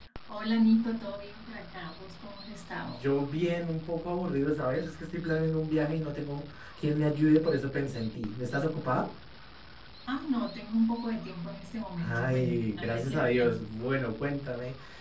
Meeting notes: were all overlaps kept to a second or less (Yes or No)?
No